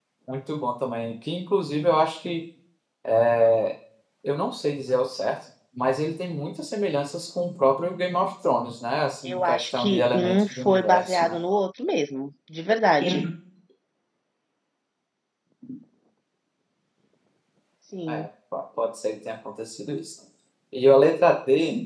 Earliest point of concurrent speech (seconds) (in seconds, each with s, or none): 9.2 s